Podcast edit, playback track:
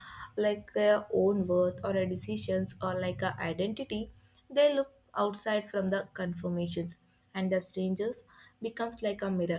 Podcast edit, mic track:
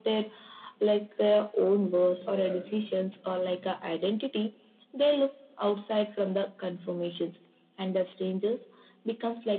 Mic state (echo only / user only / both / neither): both